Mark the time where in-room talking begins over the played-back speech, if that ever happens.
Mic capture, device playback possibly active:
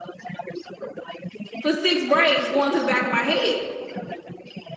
2 s

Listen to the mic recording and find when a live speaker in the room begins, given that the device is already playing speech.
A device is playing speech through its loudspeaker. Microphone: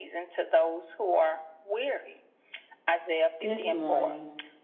3 s

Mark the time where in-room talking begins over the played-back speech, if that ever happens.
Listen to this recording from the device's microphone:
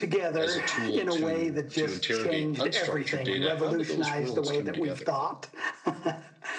0 s

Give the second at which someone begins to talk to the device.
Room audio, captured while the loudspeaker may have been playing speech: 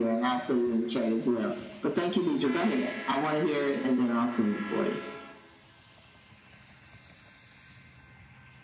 none

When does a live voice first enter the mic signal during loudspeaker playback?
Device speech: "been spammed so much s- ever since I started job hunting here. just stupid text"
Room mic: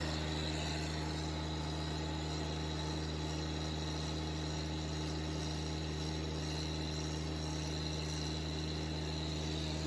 none

